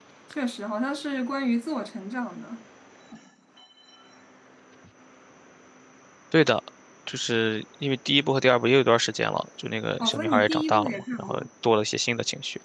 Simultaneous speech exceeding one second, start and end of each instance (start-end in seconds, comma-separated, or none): 10.0-11.5